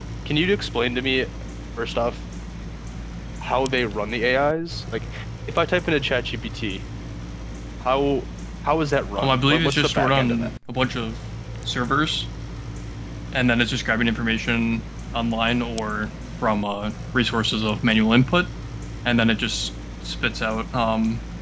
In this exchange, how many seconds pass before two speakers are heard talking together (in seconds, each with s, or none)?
9.2 s